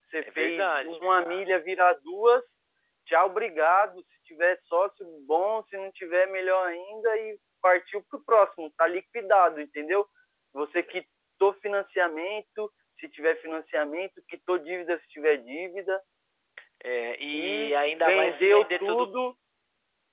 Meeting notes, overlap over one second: present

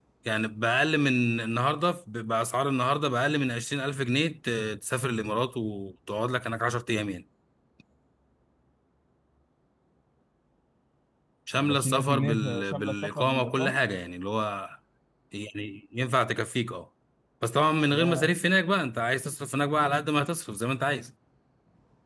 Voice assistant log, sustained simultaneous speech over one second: present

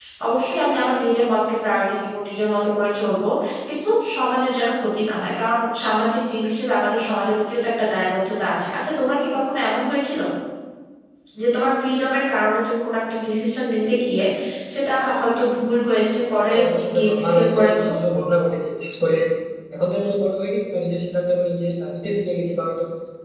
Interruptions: present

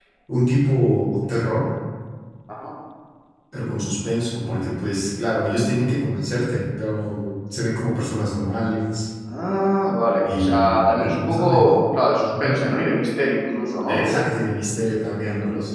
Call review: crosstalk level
present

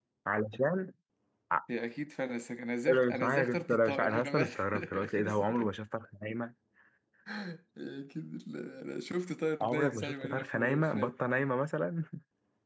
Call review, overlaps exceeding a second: present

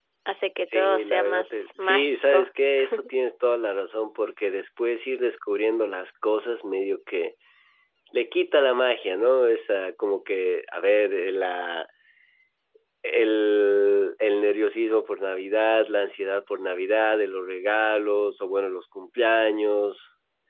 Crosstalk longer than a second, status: present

